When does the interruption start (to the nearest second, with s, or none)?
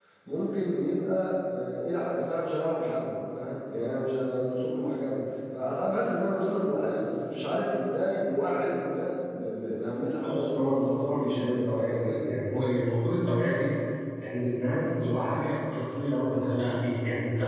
10 s